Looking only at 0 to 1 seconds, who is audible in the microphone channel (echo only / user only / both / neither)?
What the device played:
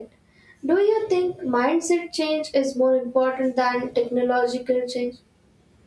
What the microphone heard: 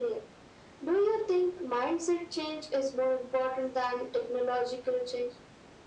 echo only